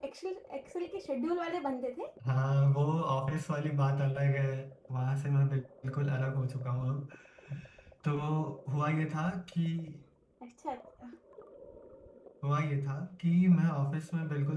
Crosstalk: none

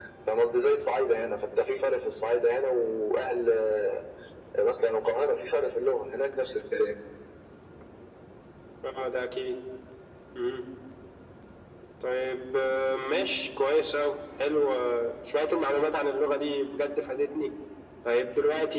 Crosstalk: none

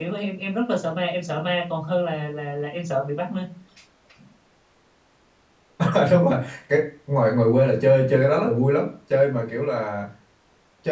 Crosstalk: none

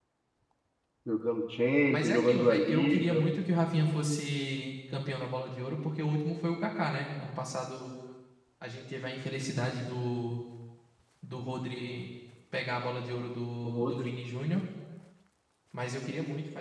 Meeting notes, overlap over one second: present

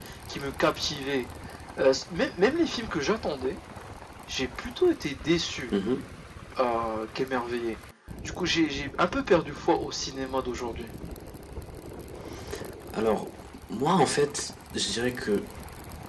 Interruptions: none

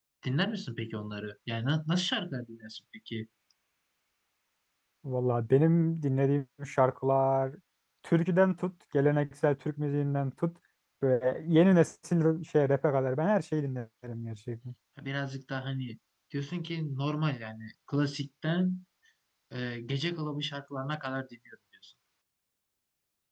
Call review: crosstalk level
none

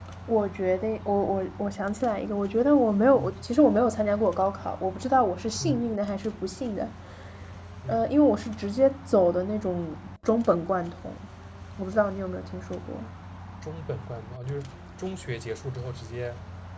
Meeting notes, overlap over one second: none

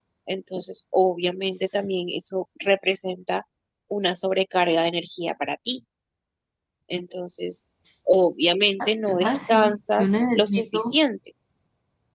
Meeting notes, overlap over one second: present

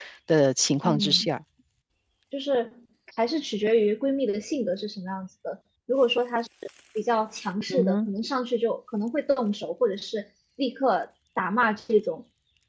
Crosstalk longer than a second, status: none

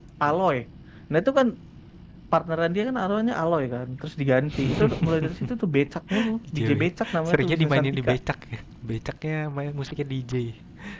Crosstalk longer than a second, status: present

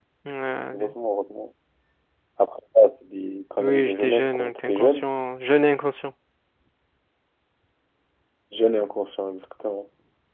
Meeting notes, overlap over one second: present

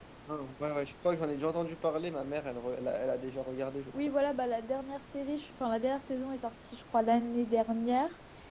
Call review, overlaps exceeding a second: none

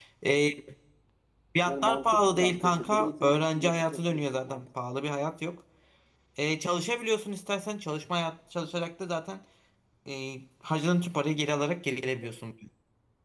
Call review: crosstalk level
present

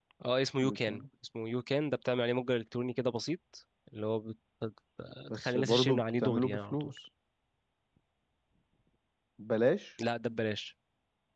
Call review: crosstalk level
present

